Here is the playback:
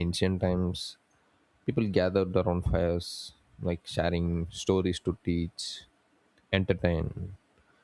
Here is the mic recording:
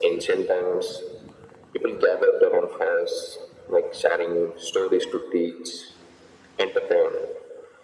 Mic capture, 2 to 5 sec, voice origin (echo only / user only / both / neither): echo only